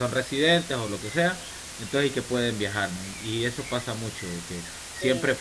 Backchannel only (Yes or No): Yes